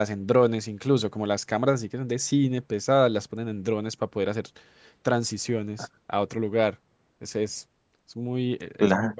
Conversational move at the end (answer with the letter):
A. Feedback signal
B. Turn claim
A